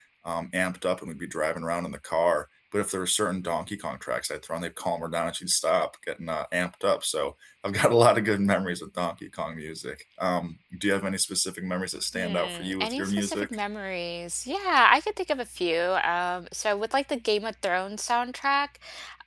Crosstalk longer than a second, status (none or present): present